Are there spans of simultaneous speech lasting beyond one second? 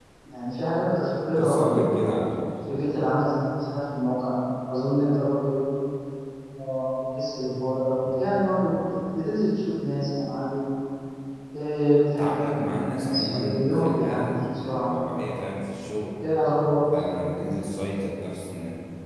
Yes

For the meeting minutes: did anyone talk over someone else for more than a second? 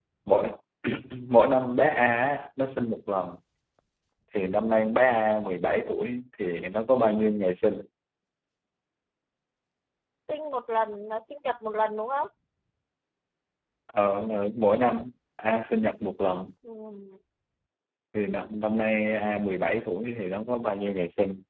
No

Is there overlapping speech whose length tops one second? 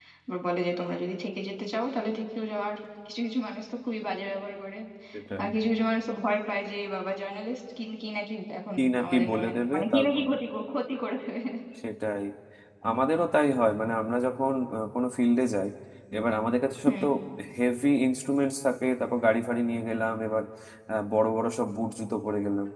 Yes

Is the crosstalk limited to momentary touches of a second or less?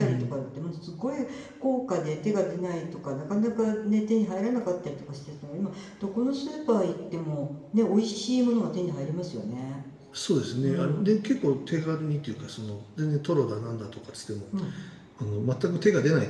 Yes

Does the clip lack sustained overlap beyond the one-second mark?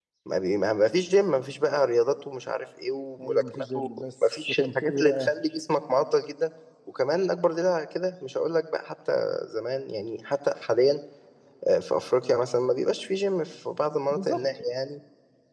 No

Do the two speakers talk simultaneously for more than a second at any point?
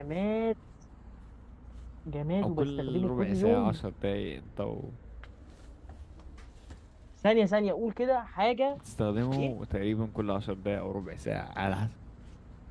Yes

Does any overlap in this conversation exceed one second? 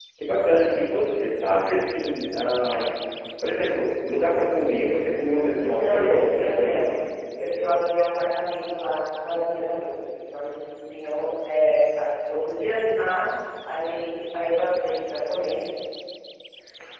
Yes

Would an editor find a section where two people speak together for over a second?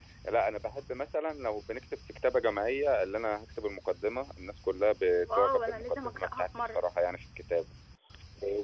Yes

